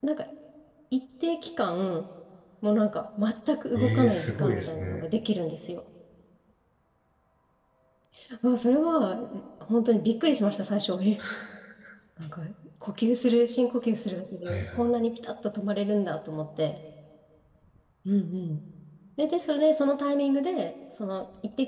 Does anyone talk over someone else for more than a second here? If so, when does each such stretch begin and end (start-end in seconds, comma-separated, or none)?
3.8-5.1